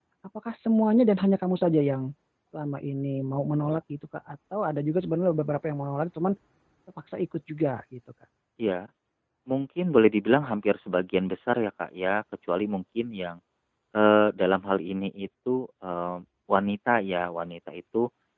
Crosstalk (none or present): none